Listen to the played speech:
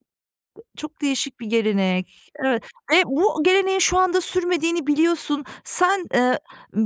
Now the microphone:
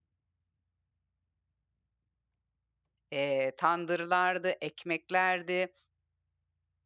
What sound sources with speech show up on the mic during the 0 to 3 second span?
neither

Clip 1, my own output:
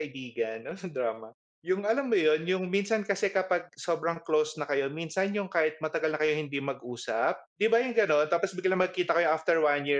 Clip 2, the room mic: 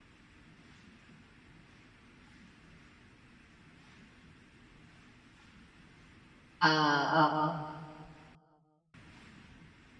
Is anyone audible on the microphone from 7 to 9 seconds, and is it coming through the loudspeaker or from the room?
user only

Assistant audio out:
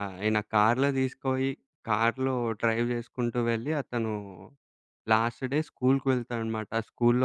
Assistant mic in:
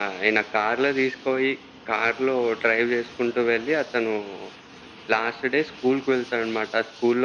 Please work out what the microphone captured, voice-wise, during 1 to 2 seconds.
echo only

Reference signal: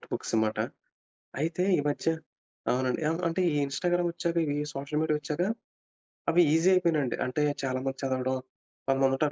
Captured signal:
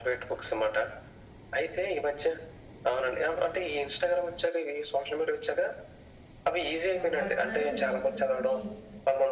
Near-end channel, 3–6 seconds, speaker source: echo only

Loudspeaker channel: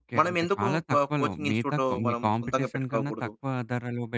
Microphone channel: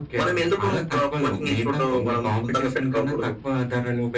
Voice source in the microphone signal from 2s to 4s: echo only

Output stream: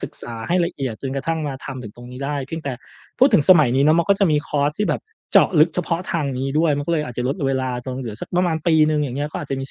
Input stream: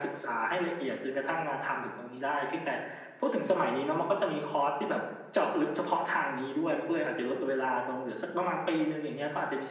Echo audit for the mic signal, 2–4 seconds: echo only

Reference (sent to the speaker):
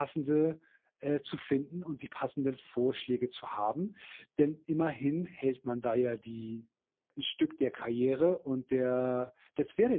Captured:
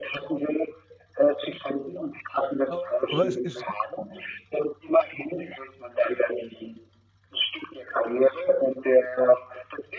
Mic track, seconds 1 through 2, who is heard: echo only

